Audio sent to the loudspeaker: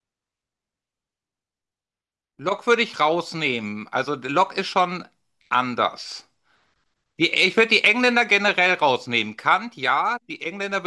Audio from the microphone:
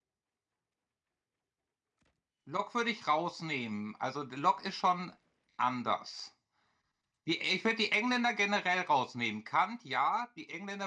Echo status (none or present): present